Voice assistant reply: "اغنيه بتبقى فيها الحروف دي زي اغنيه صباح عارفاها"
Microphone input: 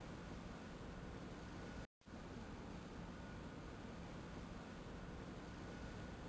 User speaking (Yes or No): No